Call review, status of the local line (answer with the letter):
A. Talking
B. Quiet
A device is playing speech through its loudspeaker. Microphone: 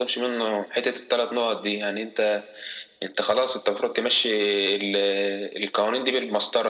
B